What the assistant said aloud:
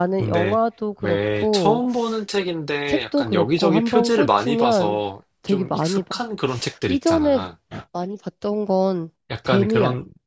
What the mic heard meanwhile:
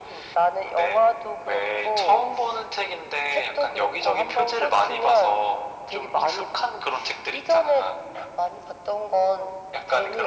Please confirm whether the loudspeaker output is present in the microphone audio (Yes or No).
Yes